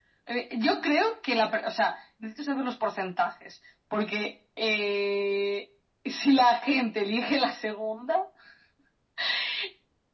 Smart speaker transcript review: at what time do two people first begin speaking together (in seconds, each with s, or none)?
none